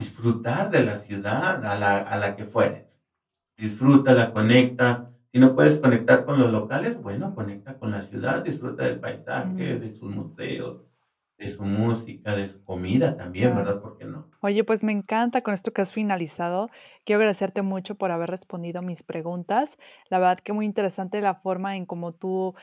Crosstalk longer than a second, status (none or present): none